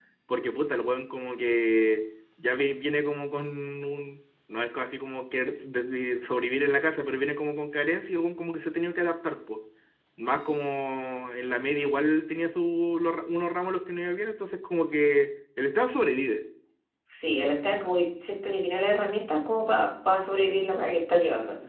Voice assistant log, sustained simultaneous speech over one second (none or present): none